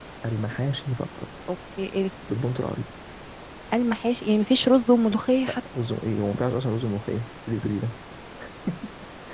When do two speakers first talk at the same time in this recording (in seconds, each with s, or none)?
none